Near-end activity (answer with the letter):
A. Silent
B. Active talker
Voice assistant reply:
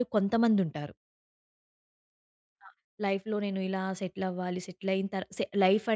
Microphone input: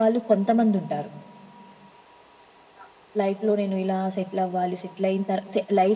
A